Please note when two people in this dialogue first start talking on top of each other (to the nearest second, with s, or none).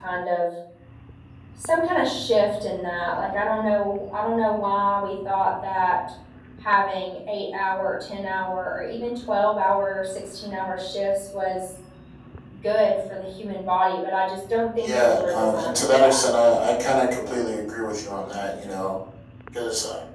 15 s